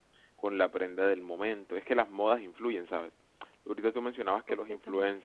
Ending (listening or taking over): listening